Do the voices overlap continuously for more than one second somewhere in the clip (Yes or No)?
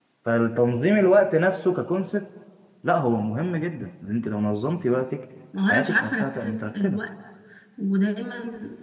Yes